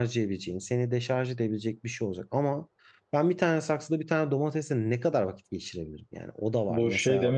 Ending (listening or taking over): taking over